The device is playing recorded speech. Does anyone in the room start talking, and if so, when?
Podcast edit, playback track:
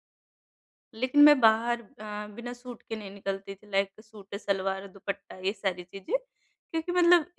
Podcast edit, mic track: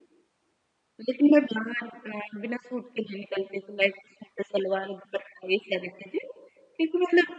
none

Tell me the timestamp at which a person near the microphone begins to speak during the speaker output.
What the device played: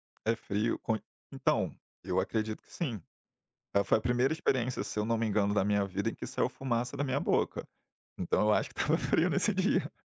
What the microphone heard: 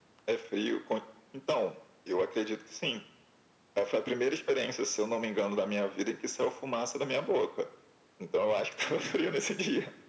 none

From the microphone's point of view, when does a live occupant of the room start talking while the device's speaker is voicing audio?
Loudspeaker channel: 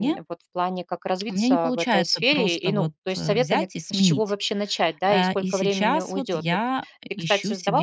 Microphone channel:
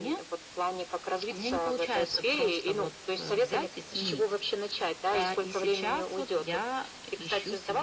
none

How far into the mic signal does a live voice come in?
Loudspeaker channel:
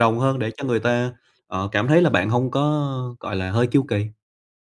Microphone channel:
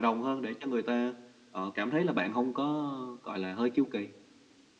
none

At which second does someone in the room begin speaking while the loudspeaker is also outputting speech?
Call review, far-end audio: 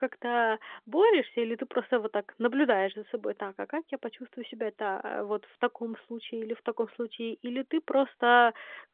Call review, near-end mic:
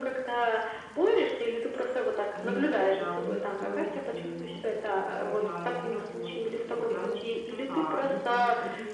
2.3 s

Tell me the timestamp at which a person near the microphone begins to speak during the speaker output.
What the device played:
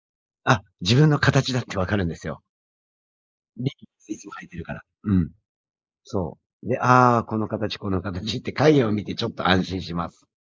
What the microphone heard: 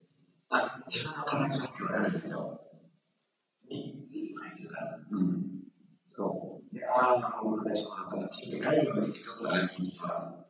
none

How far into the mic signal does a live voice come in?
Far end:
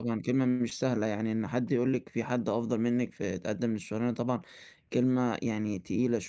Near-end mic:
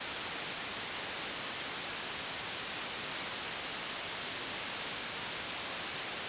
none

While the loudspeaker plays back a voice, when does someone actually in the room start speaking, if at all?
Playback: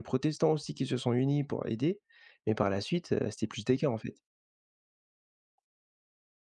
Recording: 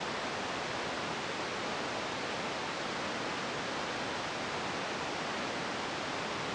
none

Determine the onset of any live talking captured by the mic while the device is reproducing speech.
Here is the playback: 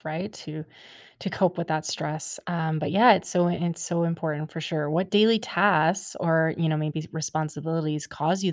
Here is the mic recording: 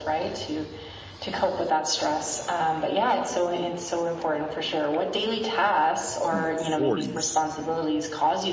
6.3 s

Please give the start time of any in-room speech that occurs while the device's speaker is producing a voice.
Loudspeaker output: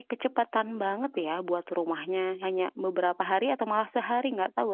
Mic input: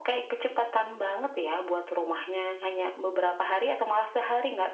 none

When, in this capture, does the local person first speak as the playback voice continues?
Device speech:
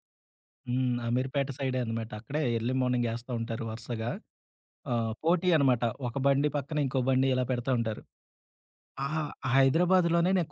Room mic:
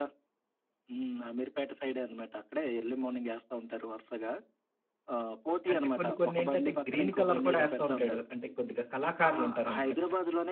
5.7 s

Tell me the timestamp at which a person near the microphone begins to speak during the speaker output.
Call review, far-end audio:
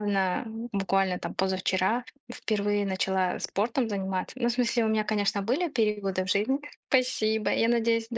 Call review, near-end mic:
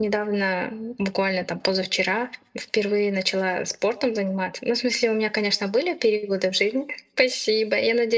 none

